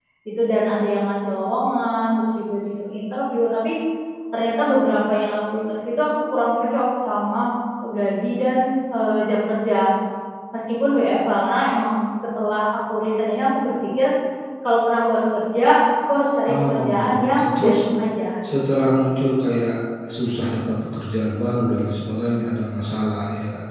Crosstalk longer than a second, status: present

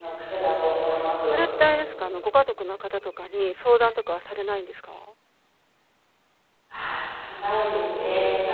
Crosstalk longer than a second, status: none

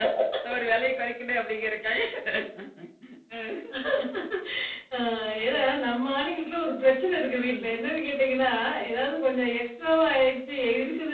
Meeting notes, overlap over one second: none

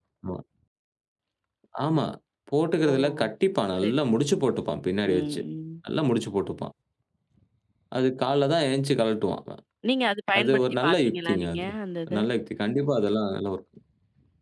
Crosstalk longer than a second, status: present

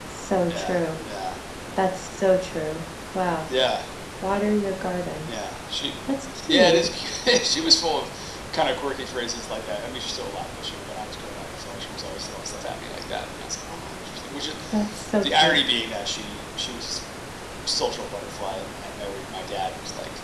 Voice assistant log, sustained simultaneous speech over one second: none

